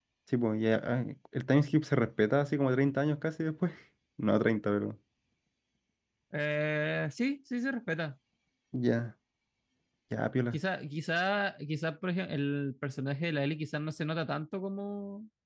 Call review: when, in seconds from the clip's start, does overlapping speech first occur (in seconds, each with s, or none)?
none